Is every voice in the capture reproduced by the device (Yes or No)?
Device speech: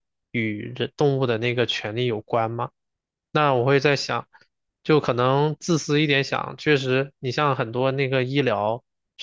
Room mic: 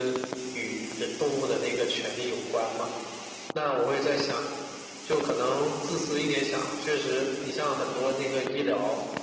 Yes